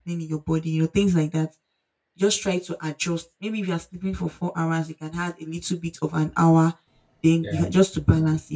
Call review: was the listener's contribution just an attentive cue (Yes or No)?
Yes